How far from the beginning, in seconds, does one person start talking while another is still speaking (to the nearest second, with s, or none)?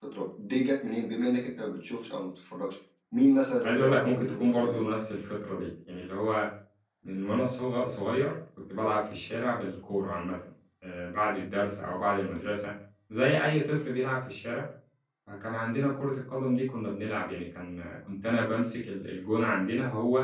4 s